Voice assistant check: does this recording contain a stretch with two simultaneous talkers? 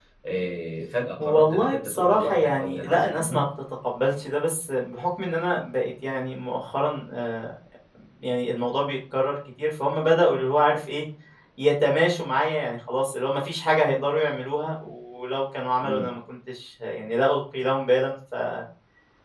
Yes, from 1.2 s

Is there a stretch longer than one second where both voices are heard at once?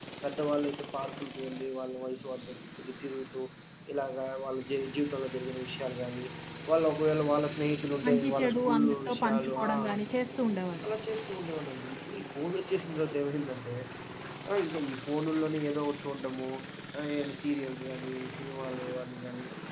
Yes, from 8.0 s

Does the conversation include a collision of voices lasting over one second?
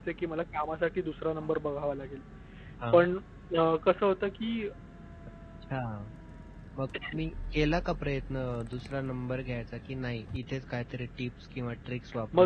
No

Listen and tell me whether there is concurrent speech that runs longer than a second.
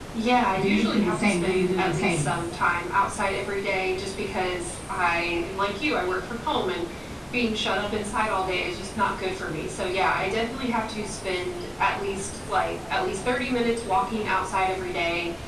Yes, from 0.6 s

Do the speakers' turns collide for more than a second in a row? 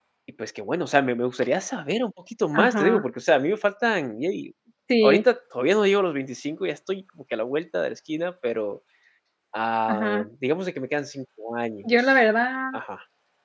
No

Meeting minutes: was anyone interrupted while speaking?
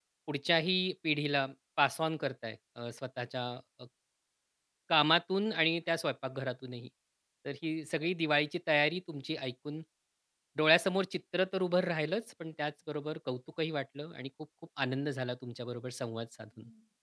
No

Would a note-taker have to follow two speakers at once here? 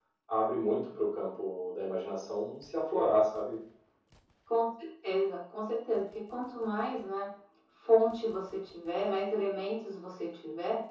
No

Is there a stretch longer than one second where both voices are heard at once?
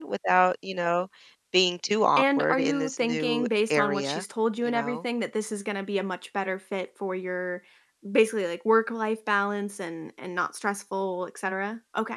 Yes, from 2.2 s

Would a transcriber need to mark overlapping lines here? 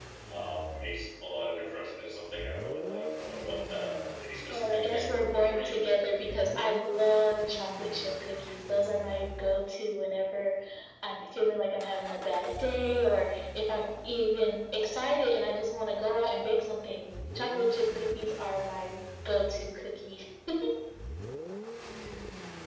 Yes, from 4.5 s

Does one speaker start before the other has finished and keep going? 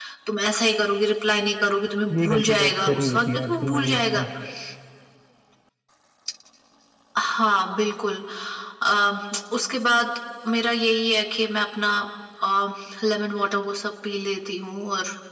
Yes, from 2.1 s

